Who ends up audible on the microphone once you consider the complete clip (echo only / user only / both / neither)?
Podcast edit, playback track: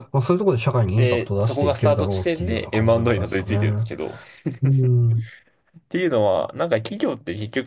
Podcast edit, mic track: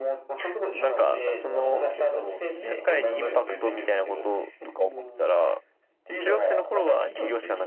both